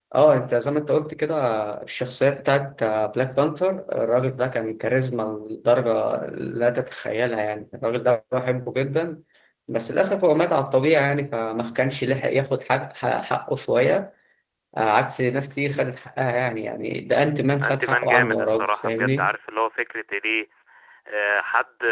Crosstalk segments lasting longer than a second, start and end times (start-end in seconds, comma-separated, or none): 17.6-19.3